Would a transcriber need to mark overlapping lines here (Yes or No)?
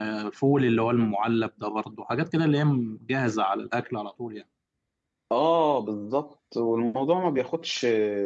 No